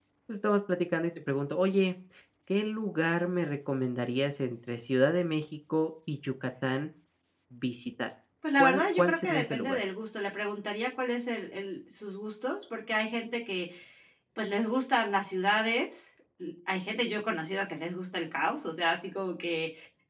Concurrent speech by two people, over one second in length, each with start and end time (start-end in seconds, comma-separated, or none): 8.6-9.8